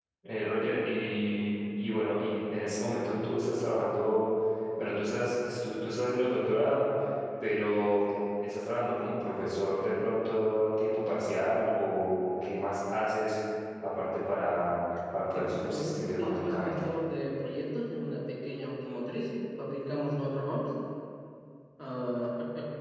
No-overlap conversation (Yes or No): No